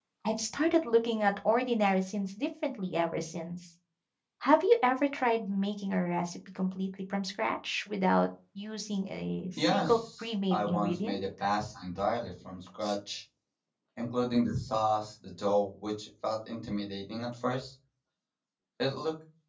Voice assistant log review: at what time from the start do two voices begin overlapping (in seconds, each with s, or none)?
9.6 s